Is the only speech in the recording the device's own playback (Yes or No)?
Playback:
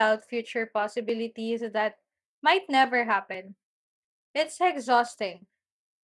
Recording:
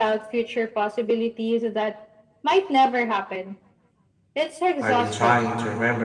No